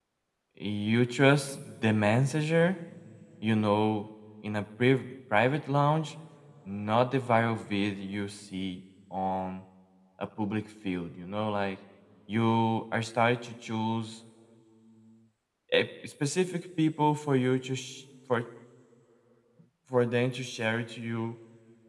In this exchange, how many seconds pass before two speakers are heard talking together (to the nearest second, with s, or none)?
none